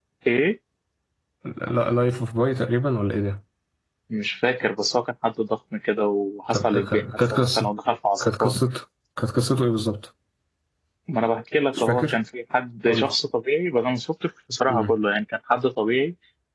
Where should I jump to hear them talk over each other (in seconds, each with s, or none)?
6.5 s